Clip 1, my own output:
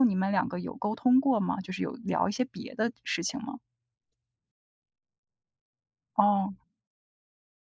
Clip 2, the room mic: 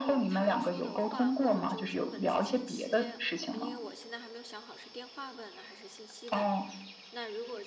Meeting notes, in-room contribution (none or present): present